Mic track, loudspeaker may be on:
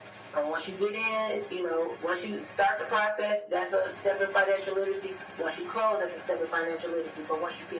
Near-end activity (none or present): none